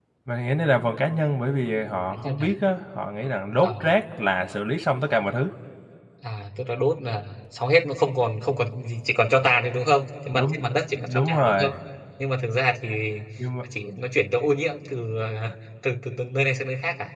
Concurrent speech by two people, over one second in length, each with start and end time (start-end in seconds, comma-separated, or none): 10.3-11.7